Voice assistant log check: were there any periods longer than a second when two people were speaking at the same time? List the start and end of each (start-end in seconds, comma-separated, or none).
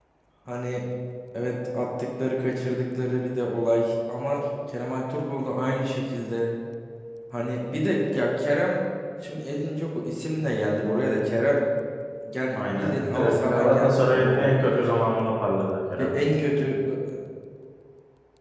12.6-14.6